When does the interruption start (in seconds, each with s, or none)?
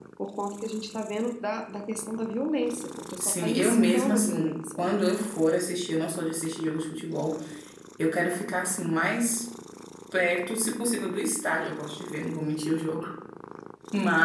3.2 s